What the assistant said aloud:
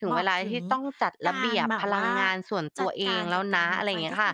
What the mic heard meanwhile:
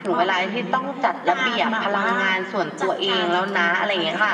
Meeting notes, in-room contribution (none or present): none